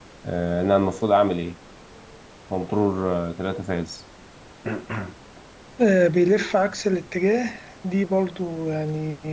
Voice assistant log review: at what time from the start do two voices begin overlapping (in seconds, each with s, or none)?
none